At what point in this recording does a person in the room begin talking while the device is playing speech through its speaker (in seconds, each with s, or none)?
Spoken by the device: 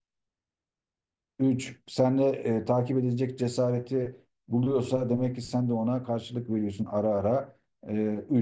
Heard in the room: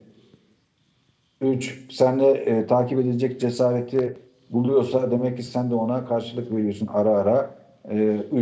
none